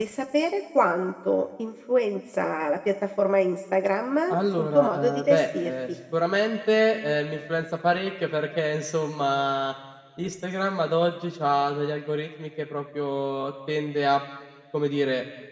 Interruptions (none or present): present